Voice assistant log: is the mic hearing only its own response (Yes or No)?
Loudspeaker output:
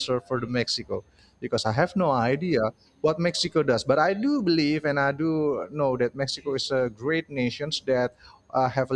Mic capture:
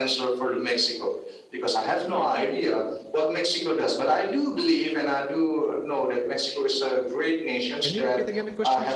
No